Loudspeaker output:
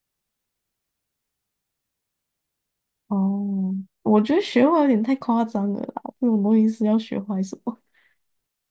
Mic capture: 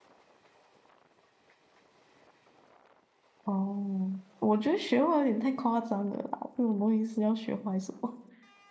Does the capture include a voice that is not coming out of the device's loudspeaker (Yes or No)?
No